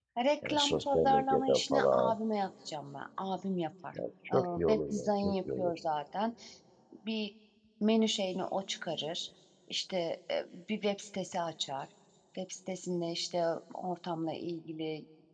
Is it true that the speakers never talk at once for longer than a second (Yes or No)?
No